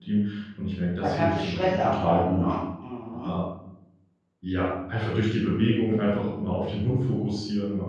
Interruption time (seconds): 1.0 s

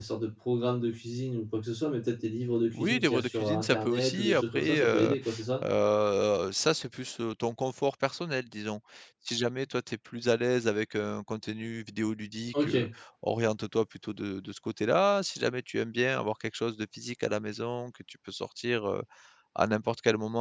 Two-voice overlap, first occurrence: 2.7 s

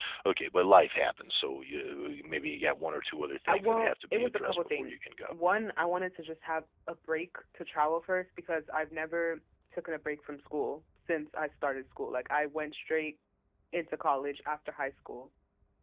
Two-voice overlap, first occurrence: 3.5 s

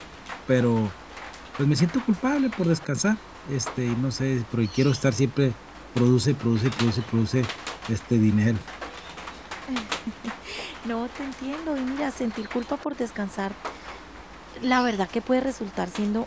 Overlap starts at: none

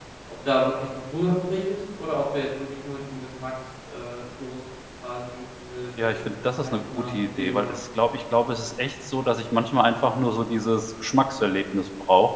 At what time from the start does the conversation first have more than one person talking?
6.0 s

